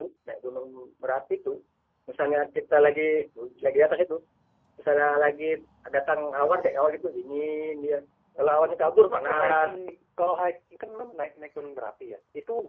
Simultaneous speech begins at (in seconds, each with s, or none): 8.4 s